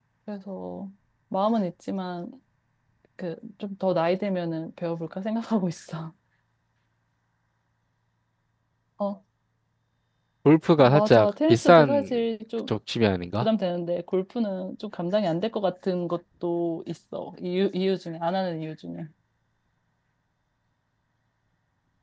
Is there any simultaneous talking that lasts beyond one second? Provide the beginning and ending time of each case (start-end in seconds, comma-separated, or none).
10.8-12.1